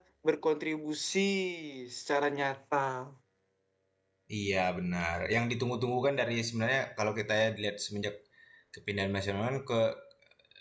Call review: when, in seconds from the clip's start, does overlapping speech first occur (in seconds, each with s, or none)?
none